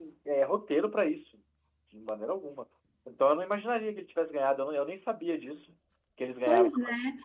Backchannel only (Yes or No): No